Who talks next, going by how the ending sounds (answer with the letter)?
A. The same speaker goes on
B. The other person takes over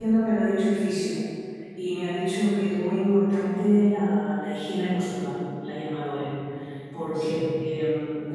A